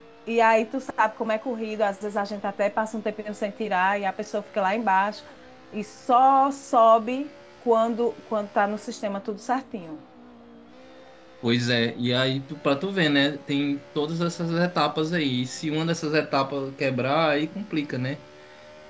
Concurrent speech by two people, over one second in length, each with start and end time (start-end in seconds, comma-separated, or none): none